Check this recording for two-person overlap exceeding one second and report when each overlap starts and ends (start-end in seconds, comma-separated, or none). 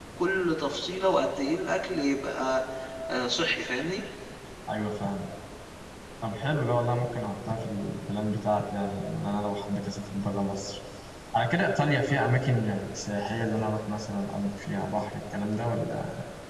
none